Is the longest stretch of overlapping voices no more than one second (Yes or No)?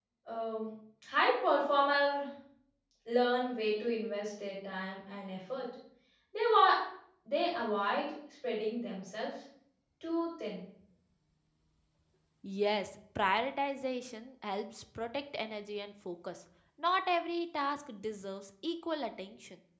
Yes